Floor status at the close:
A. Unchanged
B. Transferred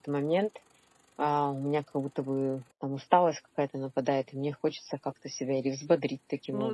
B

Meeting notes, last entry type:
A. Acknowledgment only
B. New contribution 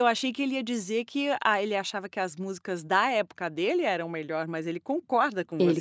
B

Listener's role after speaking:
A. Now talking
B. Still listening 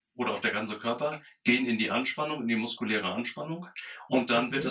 B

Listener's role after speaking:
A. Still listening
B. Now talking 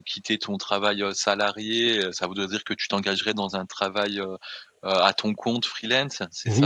B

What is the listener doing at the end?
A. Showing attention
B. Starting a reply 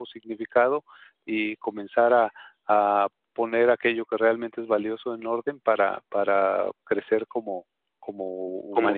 B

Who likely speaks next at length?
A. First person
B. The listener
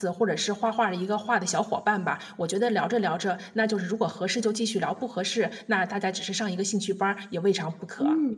B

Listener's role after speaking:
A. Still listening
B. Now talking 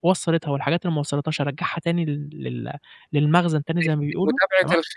B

